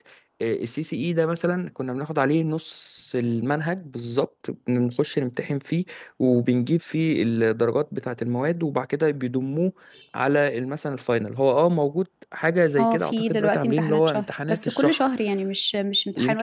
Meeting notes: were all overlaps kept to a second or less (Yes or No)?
No